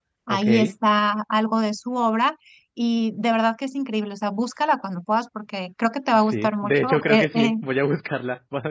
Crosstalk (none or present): present